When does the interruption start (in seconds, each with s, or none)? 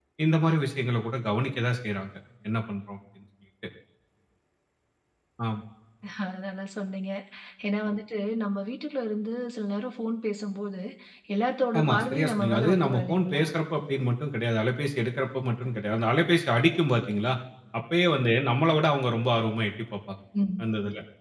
11.8 s